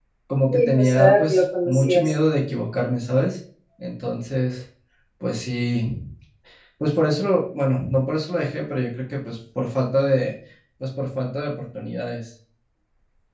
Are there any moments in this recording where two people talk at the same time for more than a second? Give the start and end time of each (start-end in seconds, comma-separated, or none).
0.5-2.1